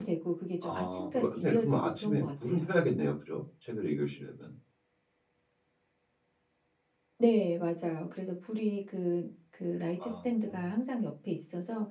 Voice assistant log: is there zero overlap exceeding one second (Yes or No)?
No